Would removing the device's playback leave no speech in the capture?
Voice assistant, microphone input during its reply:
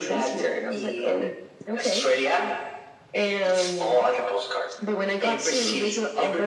Yes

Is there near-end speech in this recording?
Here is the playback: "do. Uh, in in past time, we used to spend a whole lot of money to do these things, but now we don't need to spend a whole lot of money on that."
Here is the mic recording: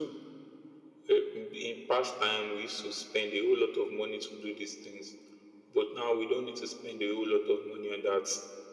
No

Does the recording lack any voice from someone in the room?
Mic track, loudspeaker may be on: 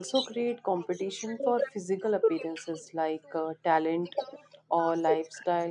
No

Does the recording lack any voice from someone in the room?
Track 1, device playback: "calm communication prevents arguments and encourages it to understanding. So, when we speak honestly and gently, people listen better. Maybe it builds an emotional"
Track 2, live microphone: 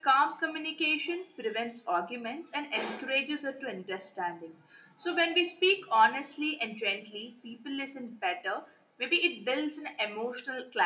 Yes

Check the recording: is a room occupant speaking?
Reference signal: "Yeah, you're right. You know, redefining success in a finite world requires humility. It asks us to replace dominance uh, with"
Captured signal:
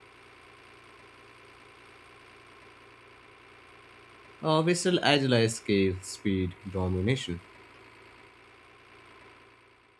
Yes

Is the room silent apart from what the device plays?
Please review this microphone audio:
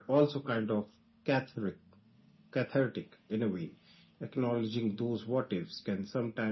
Yes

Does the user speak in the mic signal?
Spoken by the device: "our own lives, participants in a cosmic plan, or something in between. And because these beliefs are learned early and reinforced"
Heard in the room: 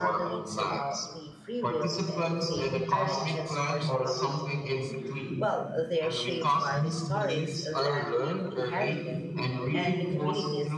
Yes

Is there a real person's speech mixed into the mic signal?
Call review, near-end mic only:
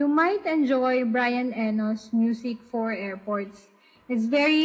No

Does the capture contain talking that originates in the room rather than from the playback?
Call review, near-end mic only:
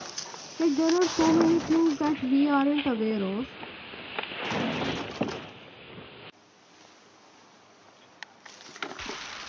Yes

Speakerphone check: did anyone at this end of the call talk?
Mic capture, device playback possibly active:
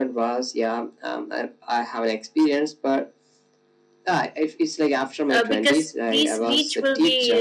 Yes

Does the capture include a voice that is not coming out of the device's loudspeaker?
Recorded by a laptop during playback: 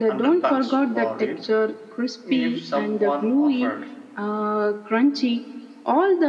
No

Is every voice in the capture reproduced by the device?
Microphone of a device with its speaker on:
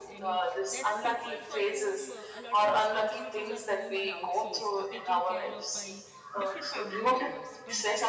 No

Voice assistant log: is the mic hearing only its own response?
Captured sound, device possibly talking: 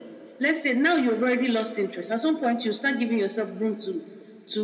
Yes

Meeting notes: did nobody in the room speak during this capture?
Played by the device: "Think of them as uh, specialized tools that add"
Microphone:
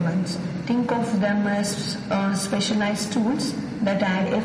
Yes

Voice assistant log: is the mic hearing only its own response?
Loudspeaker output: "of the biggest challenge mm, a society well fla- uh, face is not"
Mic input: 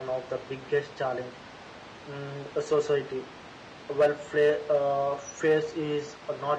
Yes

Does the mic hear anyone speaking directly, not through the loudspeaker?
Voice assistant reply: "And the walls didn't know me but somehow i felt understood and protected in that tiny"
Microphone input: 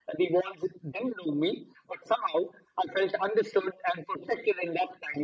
No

